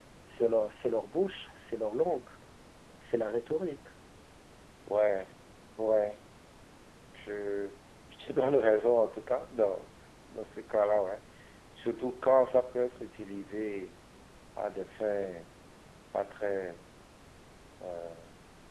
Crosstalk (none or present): none